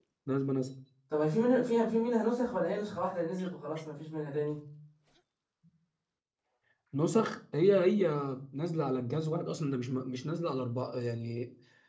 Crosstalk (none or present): none